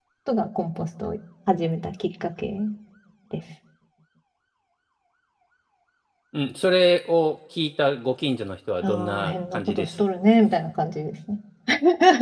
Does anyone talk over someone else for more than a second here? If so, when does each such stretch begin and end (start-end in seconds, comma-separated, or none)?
8.8-10.0